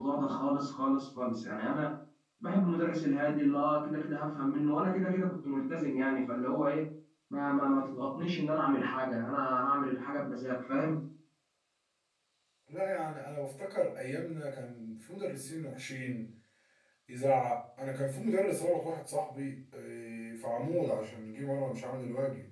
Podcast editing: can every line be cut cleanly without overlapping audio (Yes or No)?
Yes